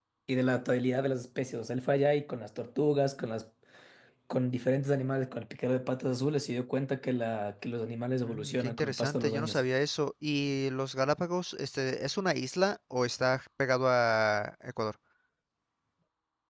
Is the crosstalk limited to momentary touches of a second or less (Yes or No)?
No